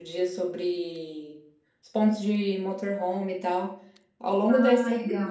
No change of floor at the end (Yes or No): Yes